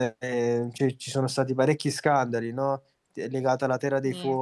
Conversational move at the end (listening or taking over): listening